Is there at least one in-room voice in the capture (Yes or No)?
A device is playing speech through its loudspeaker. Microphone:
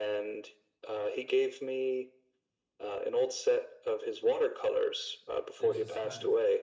Yes